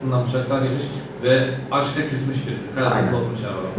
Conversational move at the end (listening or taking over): taking over